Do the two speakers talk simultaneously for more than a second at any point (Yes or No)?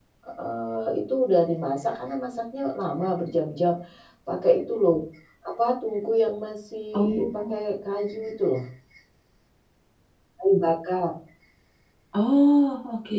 No